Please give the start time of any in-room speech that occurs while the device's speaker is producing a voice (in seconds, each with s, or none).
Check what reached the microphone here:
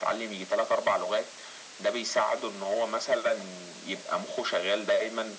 none